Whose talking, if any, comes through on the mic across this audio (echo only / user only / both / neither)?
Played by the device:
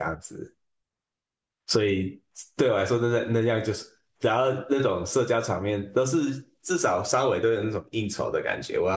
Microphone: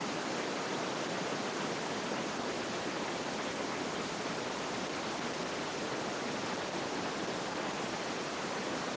neither